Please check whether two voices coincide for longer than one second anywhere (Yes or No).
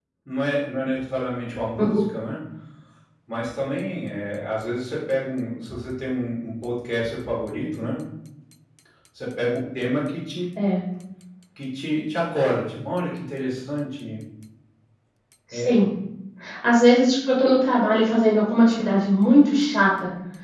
No